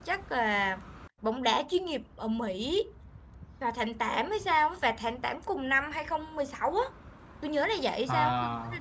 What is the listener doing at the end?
listening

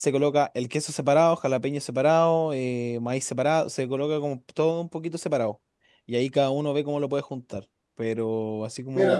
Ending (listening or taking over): taking over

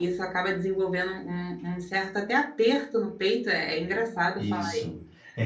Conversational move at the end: taking over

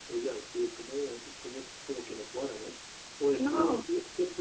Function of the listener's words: listening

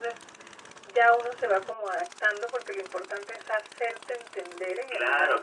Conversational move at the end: taking over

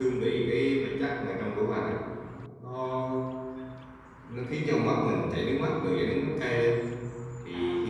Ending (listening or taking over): listening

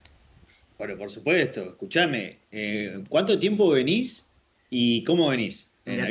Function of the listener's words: taking over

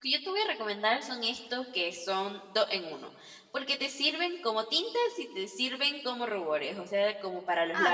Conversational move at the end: taking over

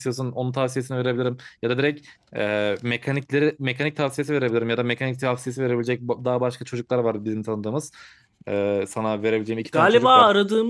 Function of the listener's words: taking over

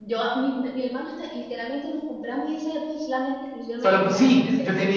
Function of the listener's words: taking over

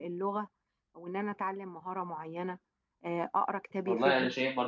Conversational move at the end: taking over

